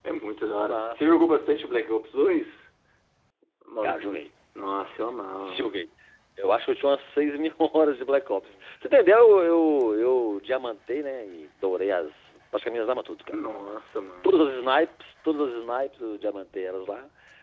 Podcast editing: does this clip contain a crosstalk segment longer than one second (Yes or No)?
No